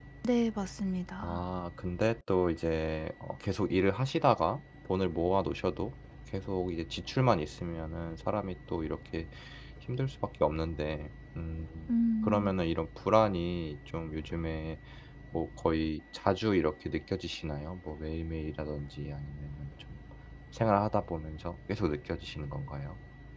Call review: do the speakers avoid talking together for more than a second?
Yes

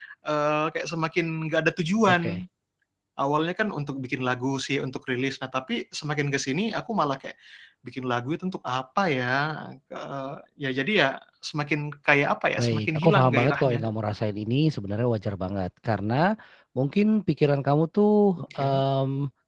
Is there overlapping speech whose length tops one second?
Yes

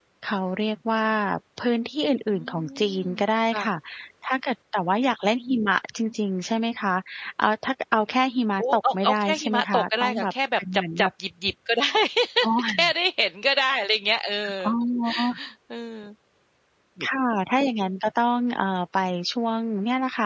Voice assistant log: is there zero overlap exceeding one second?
No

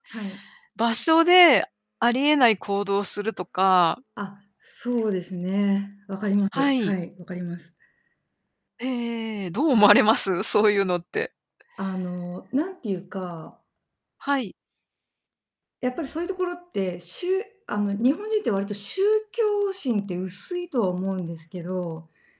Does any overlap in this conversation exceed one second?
No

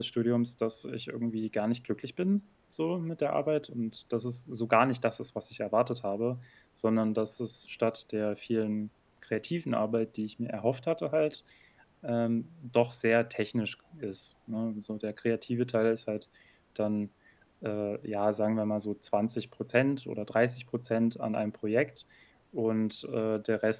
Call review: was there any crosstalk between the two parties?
No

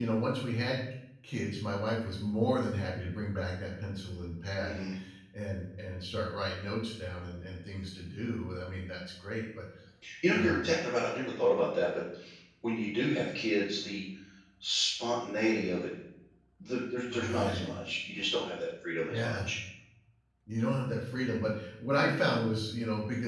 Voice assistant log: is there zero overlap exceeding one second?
Yes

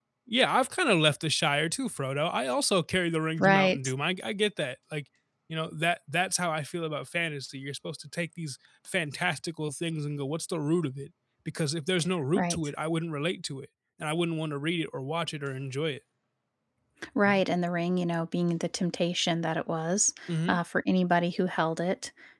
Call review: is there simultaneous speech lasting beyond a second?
No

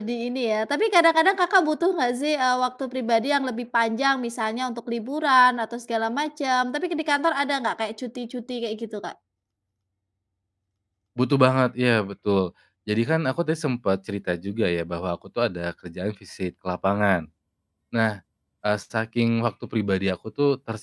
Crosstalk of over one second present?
No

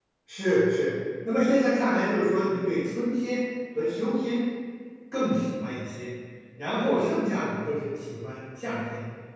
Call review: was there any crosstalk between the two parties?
No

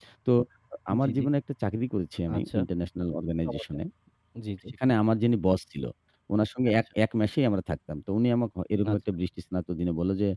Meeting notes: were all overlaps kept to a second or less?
Yes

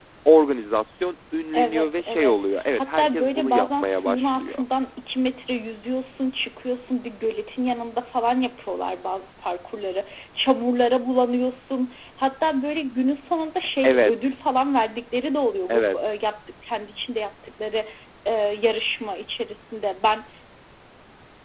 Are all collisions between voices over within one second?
No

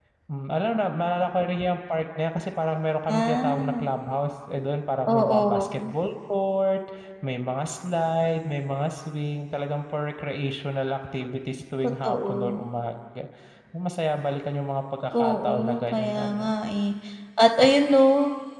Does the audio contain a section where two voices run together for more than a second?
Yes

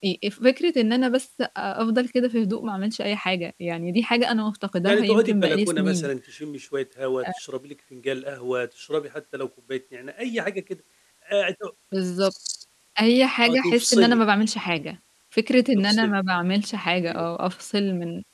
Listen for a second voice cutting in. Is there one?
Yes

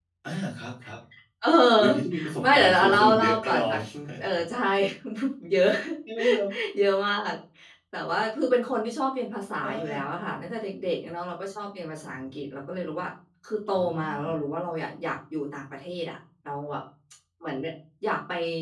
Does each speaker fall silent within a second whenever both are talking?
No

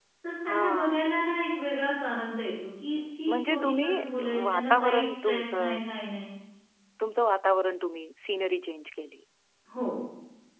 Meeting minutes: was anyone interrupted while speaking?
Yes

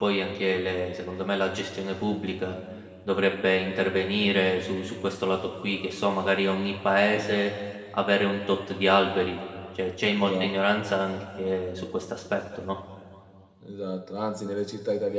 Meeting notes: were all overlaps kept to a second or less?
Yes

